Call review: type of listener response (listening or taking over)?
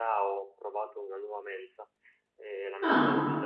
listening